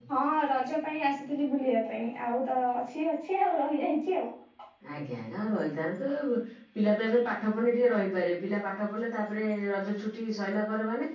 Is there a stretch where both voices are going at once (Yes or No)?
No